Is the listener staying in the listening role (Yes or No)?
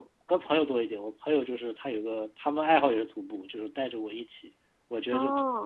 Yes